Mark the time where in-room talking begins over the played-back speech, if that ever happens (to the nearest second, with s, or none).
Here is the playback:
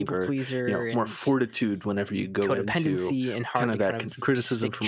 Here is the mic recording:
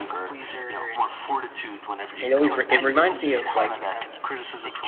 2 s